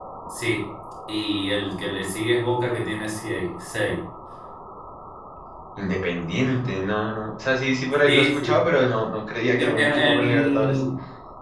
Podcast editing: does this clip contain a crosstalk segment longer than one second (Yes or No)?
Yes